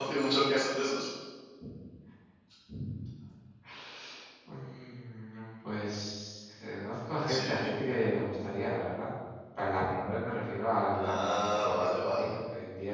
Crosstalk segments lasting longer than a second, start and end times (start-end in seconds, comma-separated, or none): 10.9-12.3